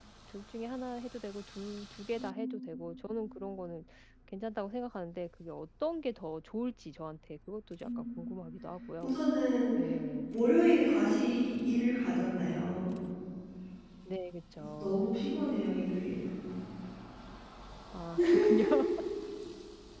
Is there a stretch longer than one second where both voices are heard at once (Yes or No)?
No